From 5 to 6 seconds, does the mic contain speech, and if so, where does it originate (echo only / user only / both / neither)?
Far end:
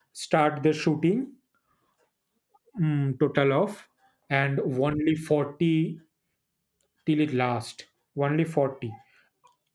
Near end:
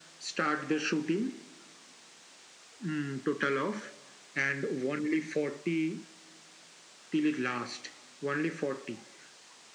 echo only